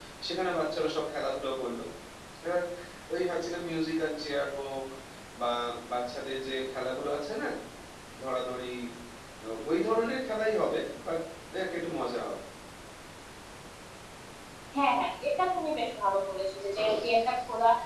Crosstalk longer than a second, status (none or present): none